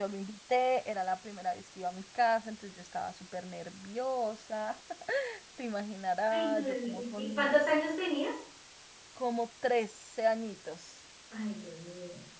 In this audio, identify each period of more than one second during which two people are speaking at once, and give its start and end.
6.3-7.5

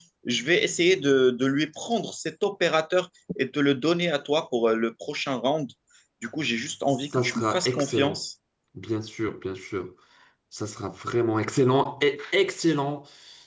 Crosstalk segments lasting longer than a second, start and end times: 6.9-8.2

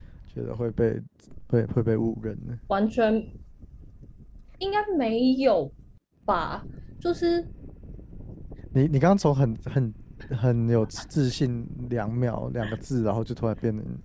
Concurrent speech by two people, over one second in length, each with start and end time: none

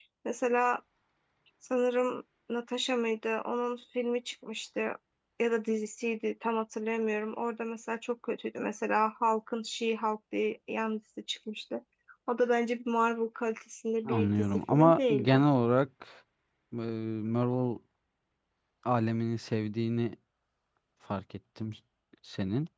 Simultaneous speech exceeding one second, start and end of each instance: 14.1-15.4

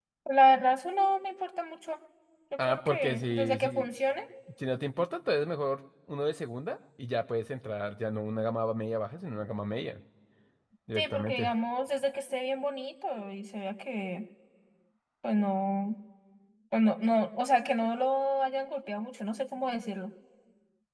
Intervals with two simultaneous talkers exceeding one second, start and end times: 2.6-3.9

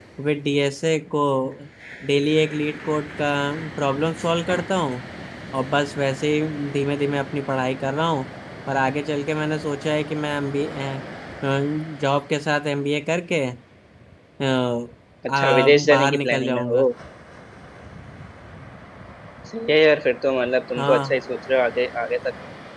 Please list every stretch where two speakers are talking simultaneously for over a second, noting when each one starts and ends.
15.3-16.9

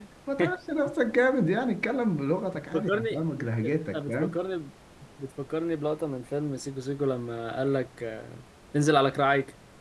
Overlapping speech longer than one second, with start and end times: 2.5-4.4

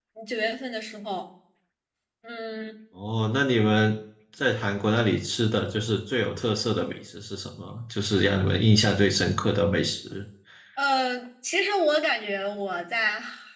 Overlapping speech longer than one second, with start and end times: none

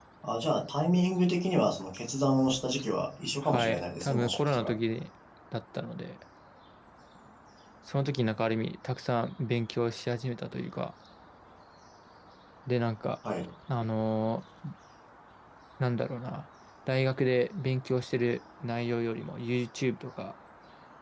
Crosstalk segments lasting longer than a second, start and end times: 3.4-4.7

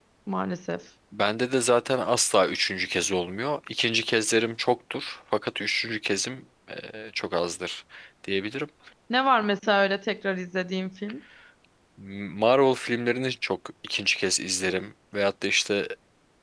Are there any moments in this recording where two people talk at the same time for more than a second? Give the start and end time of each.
none

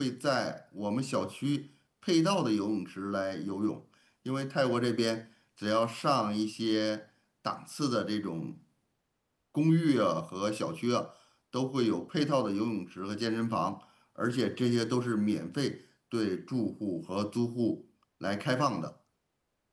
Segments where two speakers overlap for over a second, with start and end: none

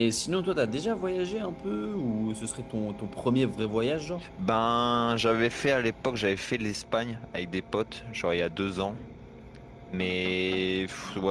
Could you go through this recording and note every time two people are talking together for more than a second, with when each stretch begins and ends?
none

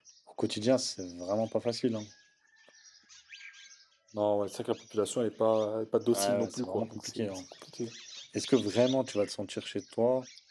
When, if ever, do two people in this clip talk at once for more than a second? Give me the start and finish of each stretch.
6.1-7.4

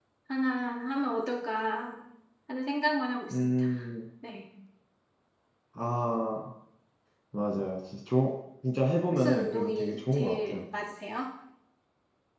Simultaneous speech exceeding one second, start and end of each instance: 9.1-10.6

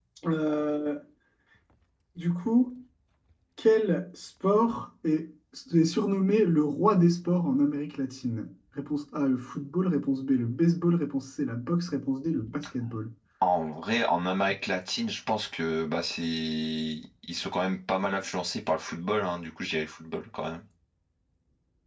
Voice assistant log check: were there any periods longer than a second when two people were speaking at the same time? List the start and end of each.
none

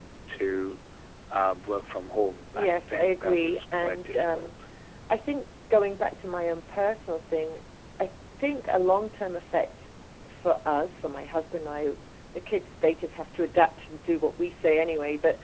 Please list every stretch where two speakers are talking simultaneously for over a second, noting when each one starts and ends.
2.5-4.5

